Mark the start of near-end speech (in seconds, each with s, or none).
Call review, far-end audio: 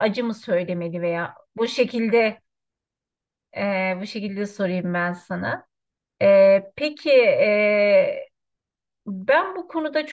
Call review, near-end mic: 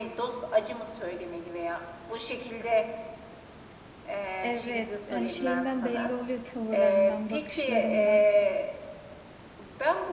4.4 s